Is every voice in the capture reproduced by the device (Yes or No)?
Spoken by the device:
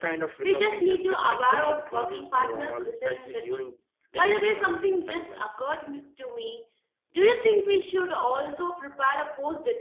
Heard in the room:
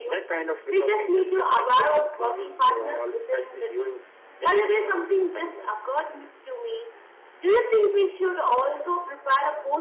Yes